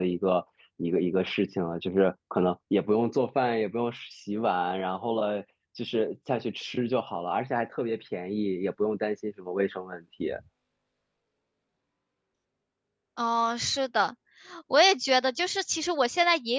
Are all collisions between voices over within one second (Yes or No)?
Yes